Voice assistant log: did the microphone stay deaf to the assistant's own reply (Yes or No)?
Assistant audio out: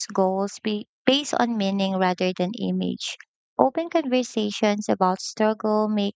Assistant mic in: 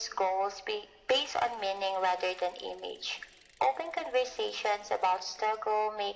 No